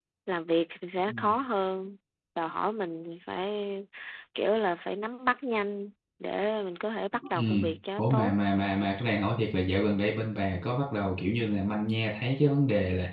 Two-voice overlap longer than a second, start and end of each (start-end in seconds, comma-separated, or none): none